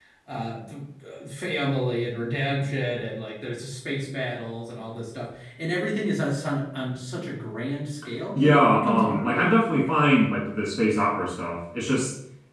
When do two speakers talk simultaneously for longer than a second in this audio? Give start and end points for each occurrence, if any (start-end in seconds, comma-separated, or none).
8.3-9.6